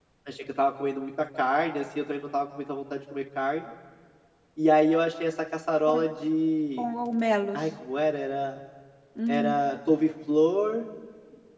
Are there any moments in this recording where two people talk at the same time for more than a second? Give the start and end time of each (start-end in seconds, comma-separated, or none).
none